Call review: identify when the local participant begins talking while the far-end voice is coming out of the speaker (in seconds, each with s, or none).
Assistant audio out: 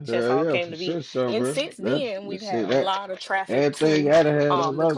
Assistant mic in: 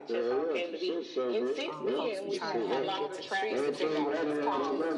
1.6 s